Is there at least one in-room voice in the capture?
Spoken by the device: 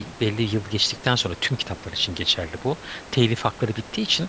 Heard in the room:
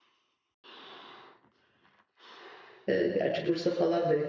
Yes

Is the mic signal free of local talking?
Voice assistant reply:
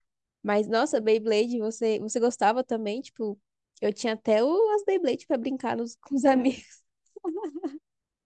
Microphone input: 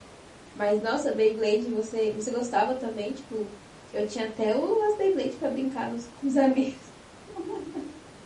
Yes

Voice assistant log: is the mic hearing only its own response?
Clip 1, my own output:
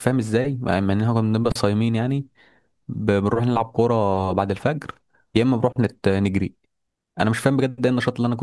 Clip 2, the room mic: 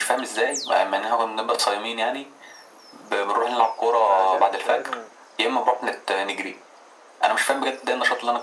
No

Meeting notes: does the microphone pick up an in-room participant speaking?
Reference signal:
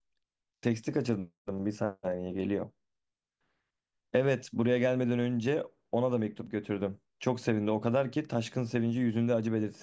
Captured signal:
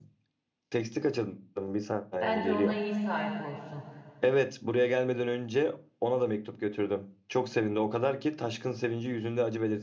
Yes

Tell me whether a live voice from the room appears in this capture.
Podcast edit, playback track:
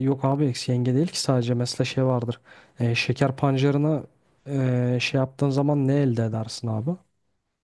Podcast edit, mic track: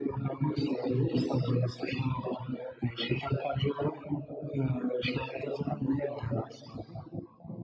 No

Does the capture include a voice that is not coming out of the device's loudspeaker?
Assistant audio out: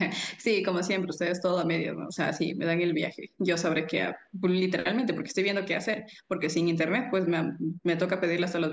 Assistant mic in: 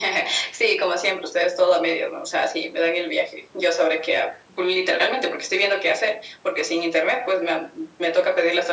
No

